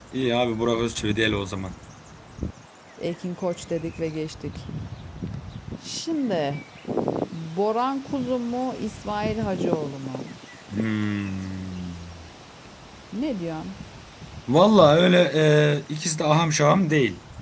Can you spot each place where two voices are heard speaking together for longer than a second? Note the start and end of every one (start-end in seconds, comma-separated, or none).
none